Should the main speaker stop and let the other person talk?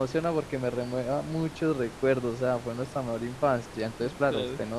No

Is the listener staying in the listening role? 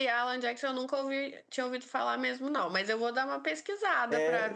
No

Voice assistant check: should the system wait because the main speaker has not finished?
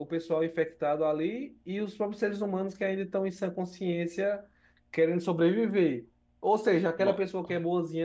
Yes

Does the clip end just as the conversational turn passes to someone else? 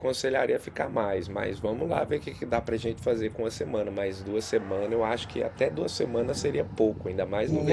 Yes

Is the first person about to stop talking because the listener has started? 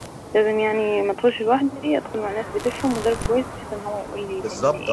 Yes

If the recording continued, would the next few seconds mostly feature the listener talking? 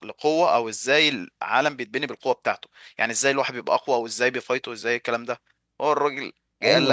Yes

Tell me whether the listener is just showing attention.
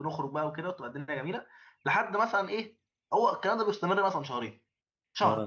Yes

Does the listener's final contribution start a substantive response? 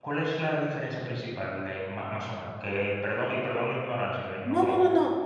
Yes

